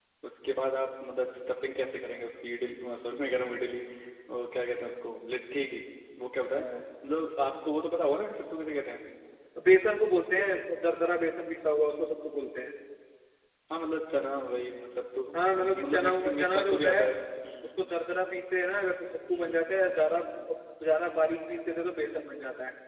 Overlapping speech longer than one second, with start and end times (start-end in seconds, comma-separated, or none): 15.5-17.1